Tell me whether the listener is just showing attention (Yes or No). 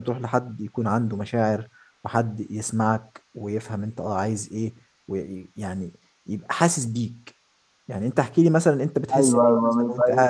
No